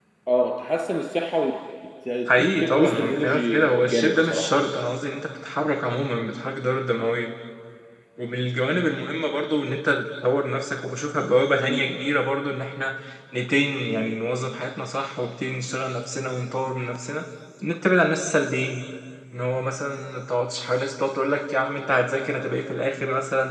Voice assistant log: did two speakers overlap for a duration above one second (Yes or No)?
Yes